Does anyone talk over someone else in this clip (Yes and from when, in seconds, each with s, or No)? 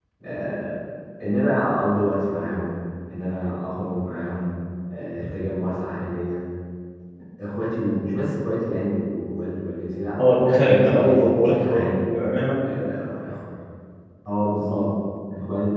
Yes, from 10.2 s